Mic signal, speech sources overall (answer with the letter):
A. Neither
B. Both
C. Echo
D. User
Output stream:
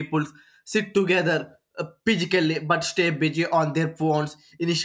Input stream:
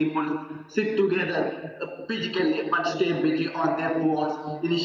C